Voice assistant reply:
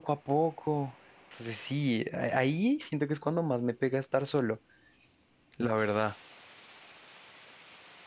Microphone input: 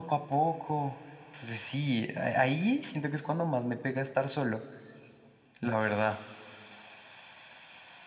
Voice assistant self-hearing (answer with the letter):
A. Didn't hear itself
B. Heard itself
B